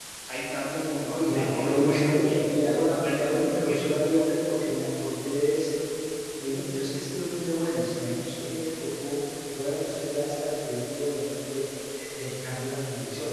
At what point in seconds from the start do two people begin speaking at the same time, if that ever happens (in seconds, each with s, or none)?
1.1 s